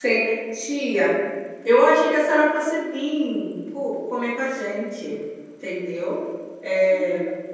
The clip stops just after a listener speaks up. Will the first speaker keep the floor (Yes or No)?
No